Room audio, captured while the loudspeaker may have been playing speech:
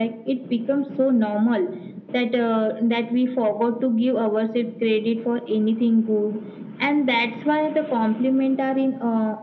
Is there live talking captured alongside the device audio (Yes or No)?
No